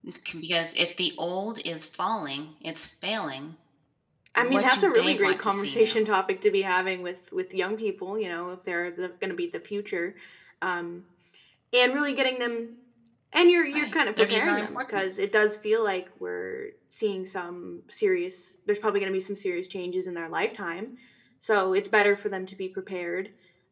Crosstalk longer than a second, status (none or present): present